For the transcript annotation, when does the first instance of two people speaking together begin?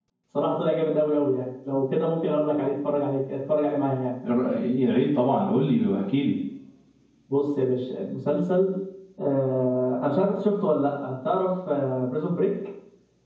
none

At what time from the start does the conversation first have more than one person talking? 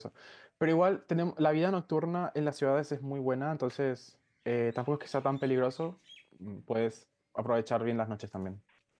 none

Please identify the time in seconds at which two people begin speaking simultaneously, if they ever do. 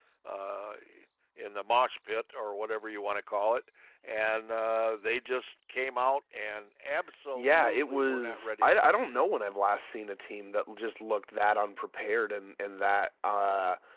7.3 s

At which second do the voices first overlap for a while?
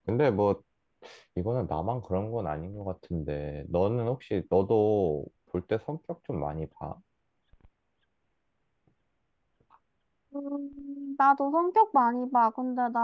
none

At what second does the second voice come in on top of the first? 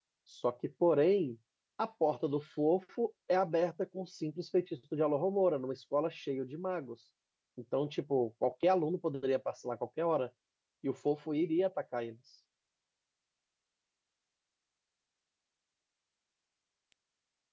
none

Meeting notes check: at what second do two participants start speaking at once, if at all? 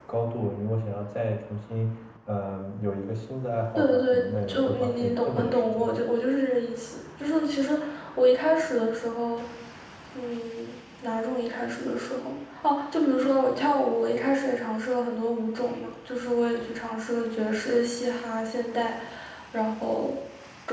3.8 s

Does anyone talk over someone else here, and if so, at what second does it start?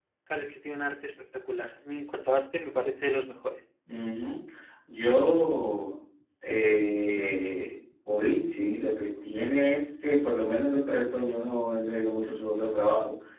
none

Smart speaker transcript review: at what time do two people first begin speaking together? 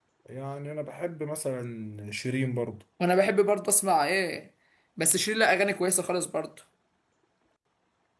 none

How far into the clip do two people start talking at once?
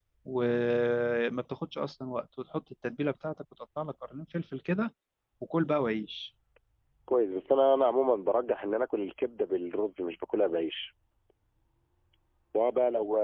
none

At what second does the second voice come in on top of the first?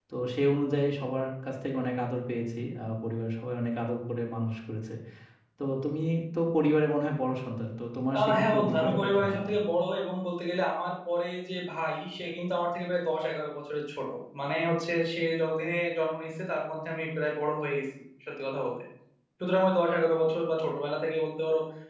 8.1 s

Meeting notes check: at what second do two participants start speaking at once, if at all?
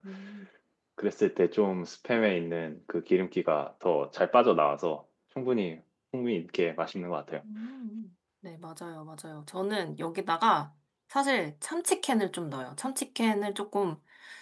none

